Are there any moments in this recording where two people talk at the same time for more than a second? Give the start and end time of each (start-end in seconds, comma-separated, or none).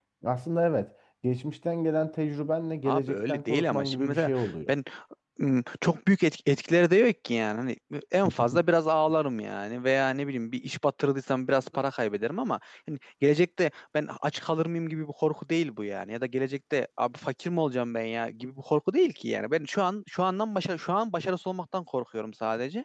2.9-4.3